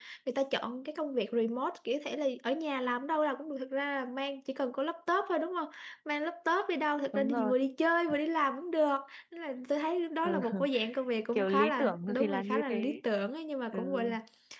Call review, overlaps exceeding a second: present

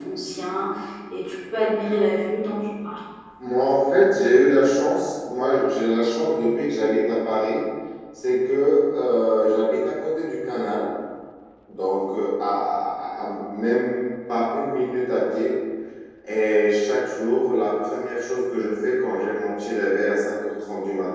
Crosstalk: none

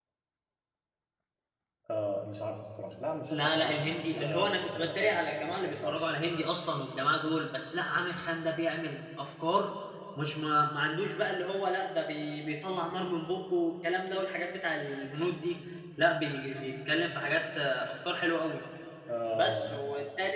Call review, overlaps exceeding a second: present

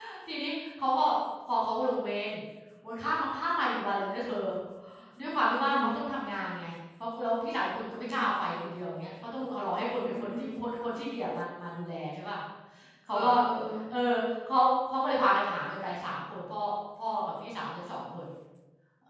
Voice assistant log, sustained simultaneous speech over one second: none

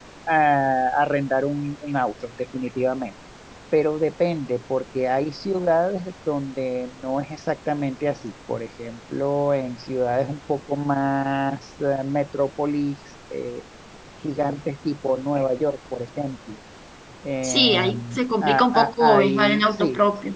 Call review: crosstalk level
present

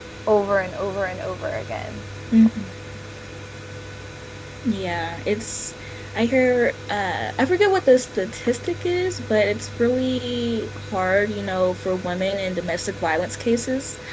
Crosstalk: none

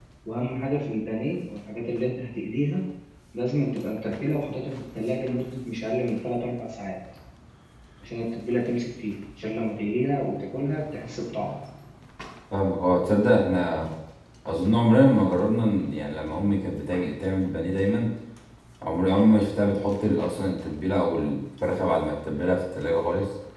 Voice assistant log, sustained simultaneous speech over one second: none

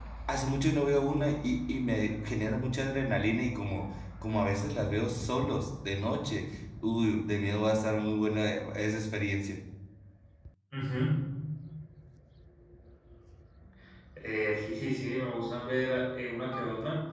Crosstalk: none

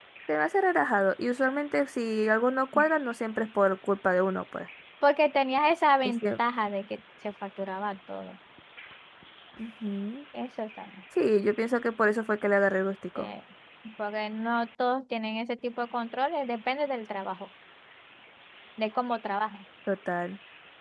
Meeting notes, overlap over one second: none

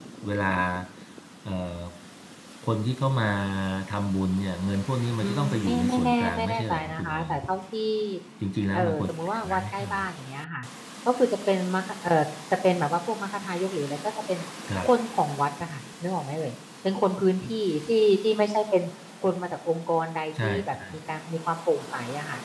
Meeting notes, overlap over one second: present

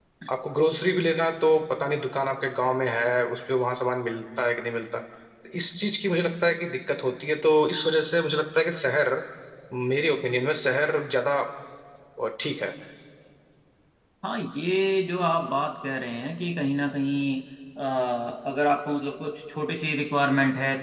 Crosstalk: none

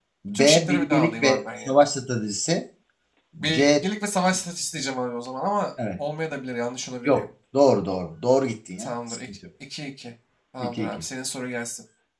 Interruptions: present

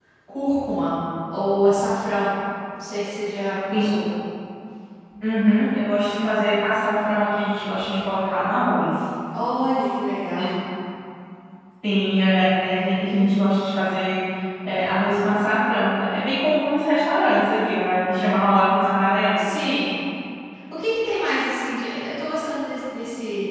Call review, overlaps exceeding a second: none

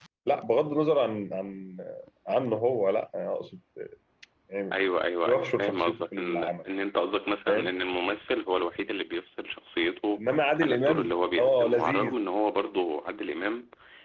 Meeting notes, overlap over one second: present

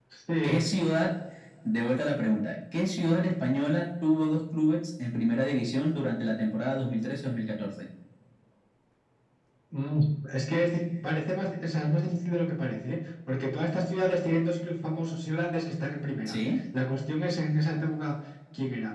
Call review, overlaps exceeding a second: none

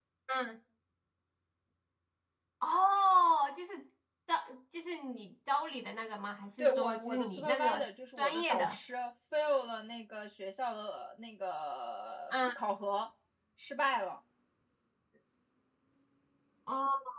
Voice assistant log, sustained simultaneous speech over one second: present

